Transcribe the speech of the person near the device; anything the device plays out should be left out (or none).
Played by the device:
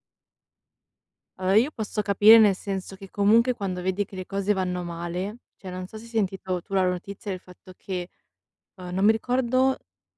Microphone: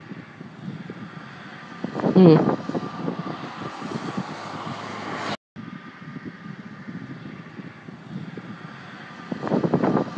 Mh-mh.